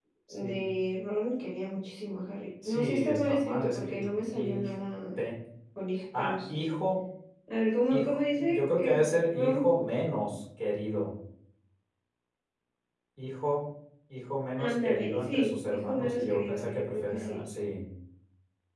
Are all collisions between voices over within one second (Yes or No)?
No